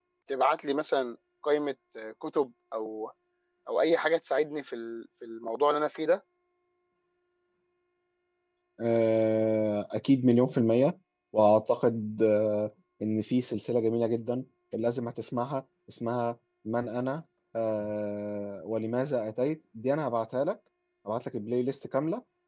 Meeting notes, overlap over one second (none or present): none